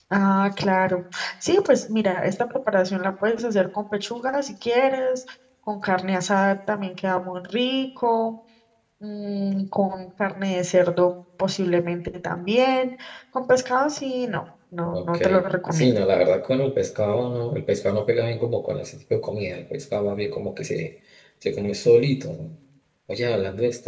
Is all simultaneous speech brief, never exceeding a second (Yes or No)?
Yes